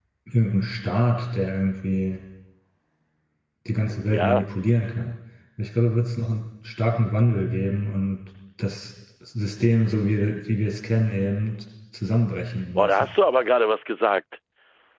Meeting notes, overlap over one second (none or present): none